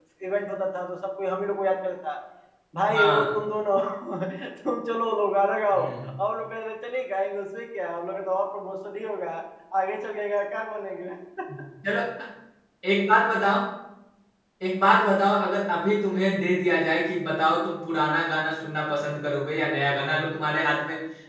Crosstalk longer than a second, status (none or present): none